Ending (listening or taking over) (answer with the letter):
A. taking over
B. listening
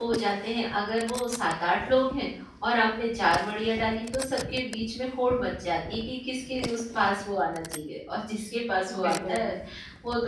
B